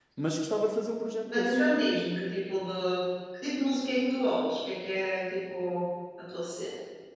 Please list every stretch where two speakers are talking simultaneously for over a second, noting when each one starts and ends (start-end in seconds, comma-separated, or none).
none